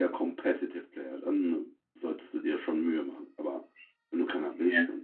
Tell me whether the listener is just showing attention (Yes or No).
Yes